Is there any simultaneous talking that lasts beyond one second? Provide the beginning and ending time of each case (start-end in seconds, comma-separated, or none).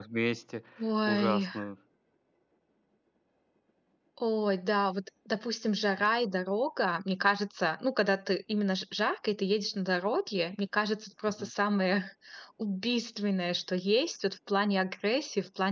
none